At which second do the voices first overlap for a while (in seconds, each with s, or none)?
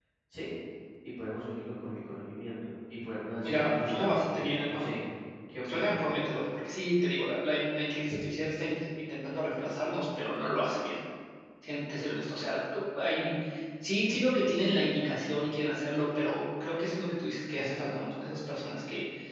3.4 s